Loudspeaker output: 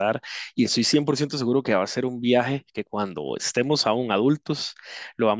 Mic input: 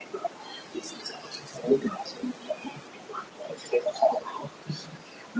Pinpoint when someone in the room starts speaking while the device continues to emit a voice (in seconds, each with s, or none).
none